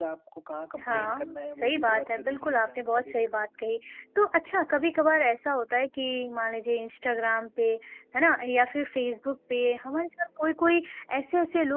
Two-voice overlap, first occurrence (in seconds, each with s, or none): 0.8 s